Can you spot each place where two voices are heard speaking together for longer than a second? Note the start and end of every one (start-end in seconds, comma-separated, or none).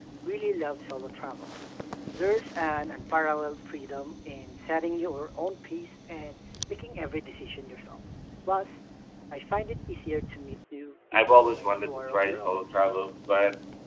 11.1-12.6